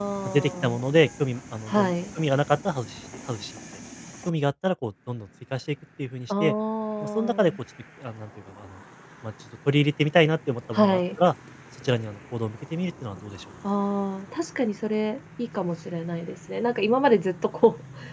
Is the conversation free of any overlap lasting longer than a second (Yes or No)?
Yes